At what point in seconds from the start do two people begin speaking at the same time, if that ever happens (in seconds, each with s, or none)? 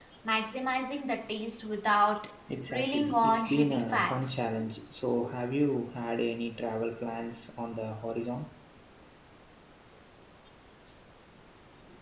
2.7 s